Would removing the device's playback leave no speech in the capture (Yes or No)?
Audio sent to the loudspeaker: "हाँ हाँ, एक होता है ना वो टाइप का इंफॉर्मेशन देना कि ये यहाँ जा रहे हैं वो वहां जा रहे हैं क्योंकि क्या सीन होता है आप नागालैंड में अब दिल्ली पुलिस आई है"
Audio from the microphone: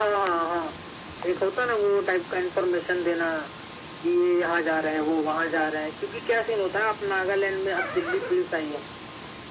Yes